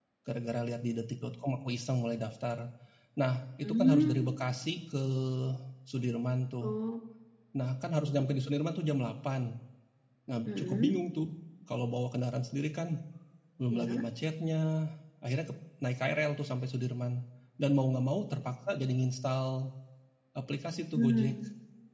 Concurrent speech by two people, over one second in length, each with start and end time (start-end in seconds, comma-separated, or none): none